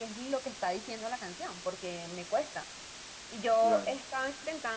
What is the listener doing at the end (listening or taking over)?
listening